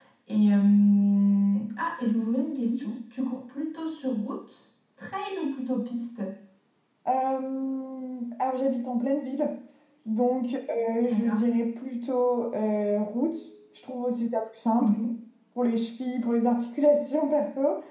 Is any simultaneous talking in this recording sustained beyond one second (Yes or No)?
No